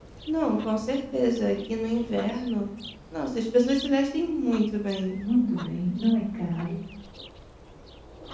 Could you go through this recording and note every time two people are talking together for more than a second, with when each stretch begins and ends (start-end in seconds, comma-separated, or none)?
none